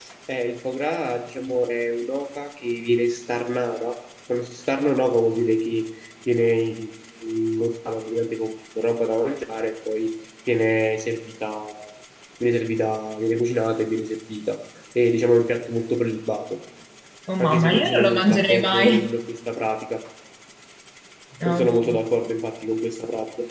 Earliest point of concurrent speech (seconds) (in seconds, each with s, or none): 17.4 s